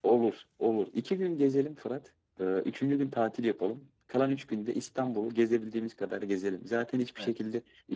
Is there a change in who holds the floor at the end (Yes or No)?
No